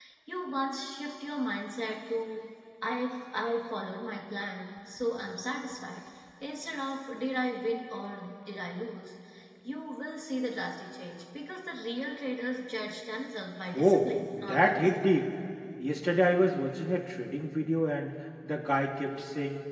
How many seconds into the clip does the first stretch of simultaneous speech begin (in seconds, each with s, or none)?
13.7 s